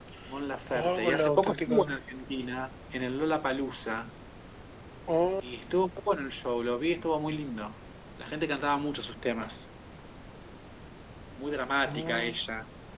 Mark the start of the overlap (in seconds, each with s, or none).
0.7 s